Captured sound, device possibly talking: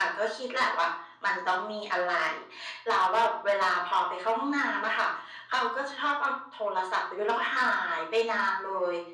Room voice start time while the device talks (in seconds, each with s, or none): none